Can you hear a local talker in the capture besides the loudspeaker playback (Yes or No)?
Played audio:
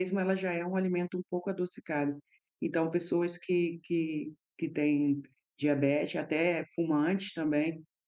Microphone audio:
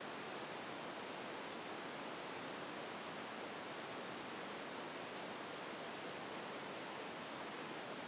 No